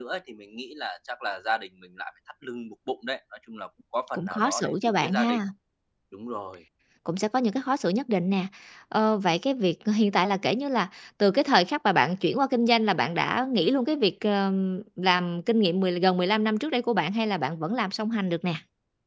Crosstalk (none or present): present